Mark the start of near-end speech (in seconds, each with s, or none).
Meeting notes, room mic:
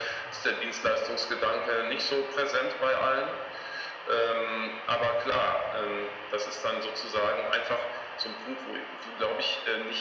none